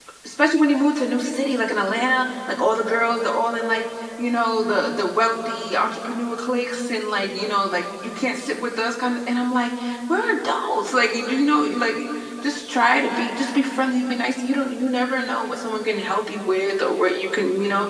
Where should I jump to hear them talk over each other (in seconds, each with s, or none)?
none